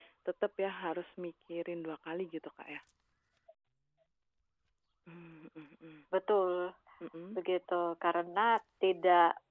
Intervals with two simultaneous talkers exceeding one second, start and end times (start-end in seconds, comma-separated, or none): none